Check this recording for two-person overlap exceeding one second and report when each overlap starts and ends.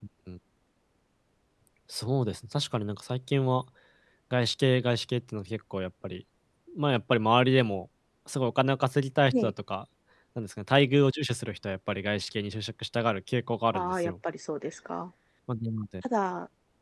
none

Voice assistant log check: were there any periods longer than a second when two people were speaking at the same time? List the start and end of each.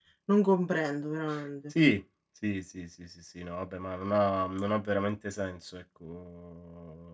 none

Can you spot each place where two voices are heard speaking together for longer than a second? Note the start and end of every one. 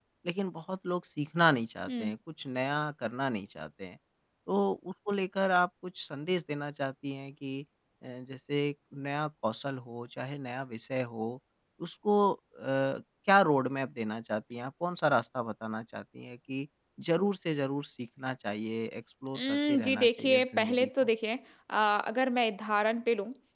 19.4-20.9

